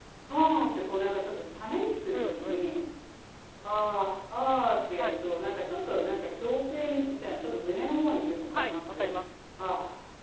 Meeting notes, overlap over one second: none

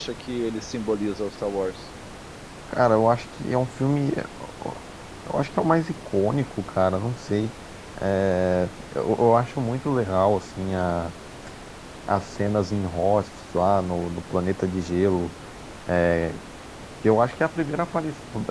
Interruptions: none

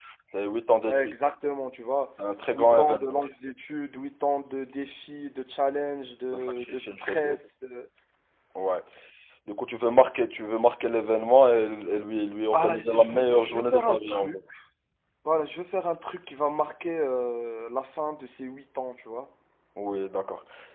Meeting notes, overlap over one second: present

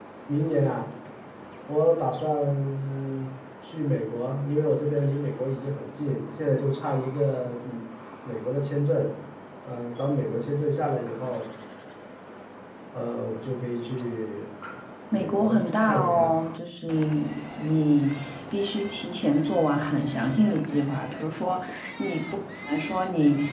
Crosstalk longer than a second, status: present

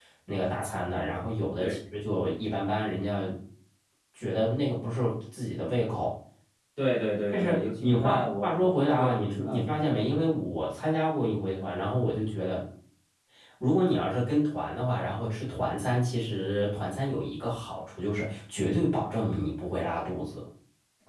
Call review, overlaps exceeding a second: present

